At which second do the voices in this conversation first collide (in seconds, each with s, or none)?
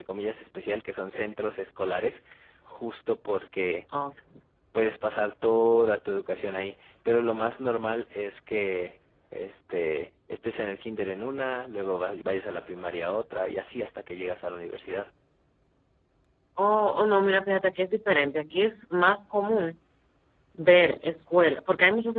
none